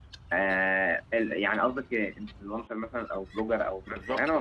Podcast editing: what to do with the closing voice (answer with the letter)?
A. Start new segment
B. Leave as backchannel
A